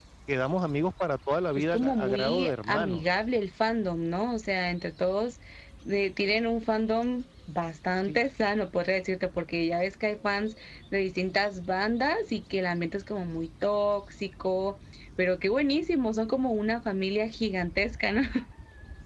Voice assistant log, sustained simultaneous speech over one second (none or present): present